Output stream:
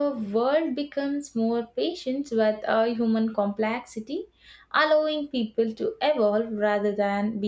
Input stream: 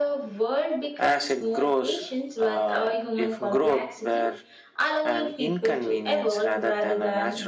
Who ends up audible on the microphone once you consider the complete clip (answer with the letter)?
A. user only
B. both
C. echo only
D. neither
B